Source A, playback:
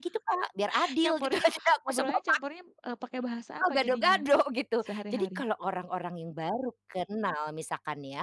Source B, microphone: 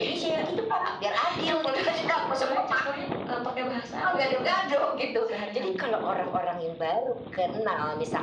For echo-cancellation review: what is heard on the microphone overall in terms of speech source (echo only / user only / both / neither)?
echo only